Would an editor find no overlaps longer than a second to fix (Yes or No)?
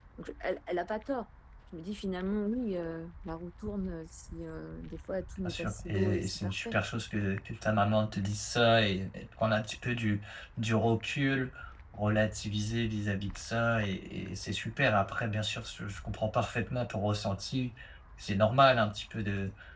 No